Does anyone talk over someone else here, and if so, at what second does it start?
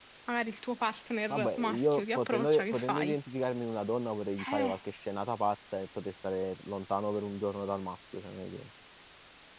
1.3 s

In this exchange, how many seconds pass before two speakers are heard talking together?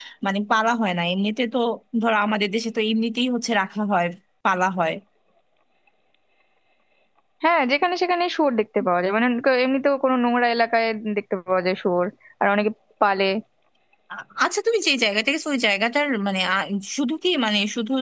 none

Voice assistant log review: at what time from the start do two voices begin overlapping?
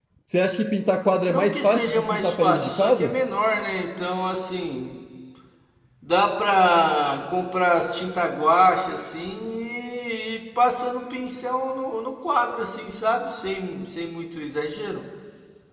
1.3 s

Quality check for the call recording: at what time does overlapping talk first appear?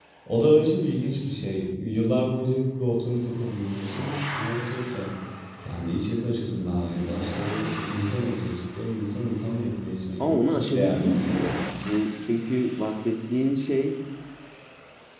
10.2 s

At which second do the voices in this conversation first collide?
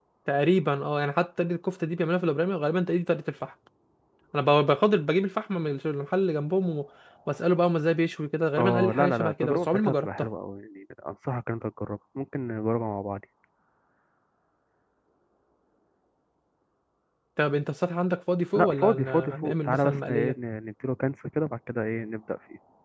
8.6 s

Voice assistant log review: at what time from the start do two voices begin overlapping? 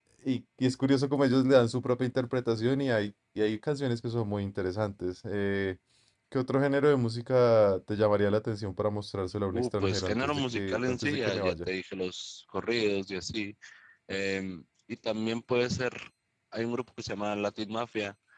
9.5 s

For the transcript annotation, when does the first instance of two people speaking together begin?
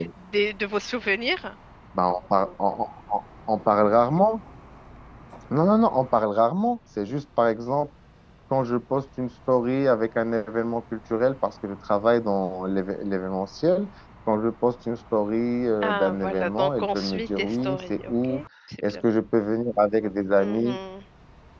15.8 s

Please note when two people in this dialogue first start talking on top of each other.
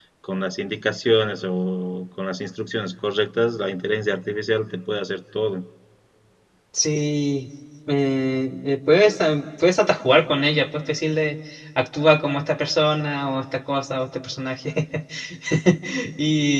none

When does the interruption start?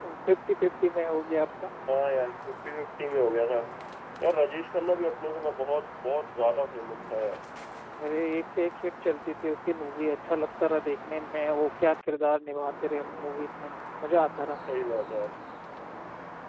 none

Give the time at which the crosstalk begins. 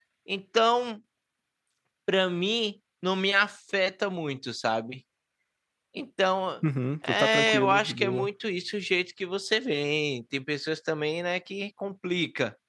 7.1 s

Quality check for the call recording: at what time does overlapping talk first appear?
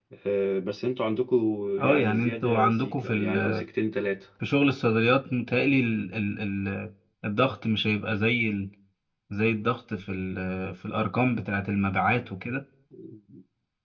1.8 s

